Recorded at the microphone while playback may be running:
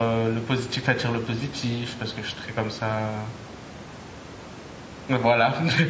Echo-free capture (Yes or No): Yes